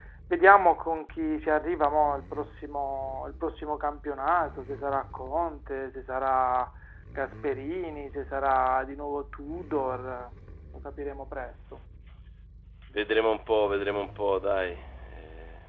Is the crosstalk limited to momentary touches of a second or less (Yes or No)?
Yes